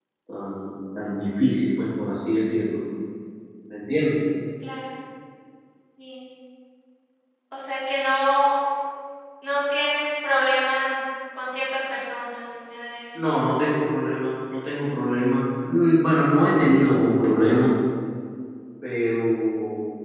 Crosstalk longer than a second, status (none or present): none